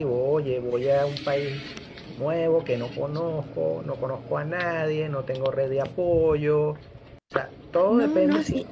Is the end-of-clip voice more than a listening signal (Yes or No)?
Yes